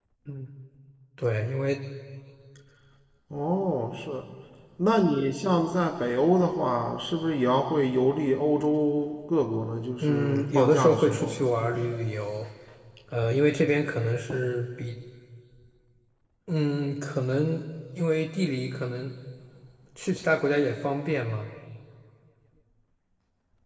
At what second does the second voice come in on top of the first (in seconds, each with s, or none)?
10.0 s